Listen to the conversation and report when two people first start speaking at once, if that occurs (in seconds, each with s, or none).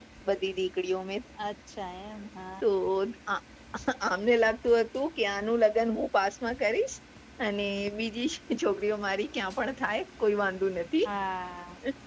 none